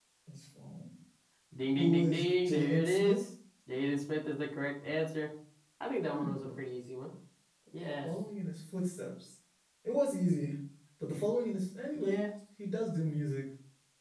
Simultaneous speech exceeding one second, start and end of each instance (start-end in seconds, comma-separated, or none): 1.8-3.3